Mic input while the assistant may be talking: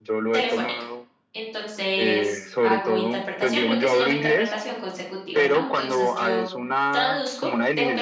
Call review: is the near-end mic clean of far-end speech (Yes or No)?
No